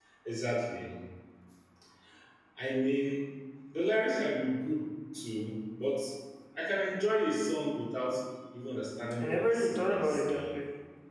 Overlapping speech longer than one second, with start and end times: 9.2-10.5

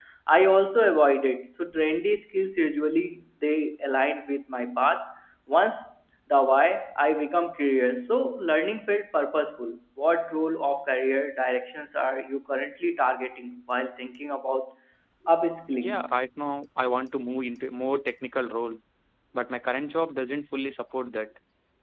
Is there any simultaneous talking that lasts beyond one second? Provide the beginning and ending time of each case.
none

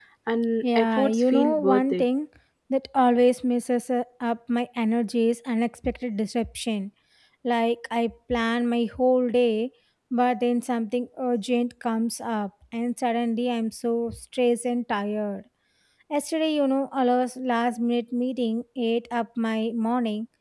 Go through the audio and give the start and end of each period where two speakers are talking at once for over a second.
0.8-2.0

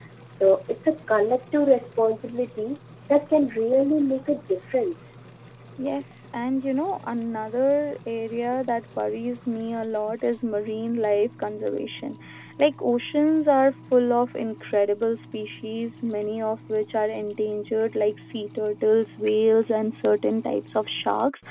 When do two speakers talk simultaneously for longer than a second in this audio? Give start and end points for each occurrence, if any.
none

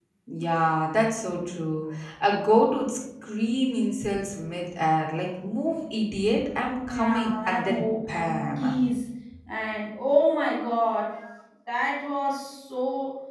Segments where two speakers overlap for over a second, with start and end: 6.9-8.7

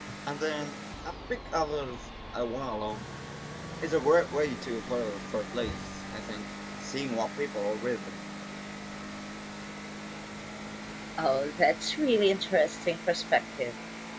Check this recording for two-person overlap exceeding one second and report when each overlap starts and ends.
none

